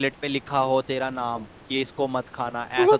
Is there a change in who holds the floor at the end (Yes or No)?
No